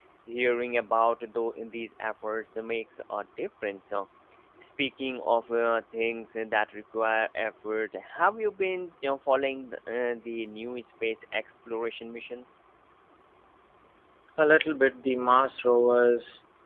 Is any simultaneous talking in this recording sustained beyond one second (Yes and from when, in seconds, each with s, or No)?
No